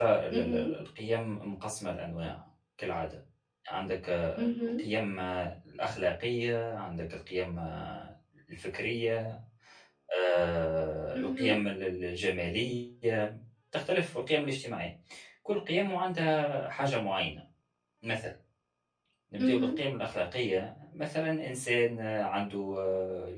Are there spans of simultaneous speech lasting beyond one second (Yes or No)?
No